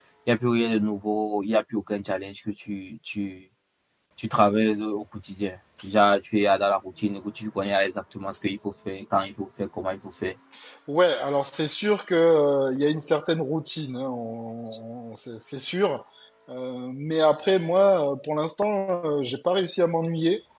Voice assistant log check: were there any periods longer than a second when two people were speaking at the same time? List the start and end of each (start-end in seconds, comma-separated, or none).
none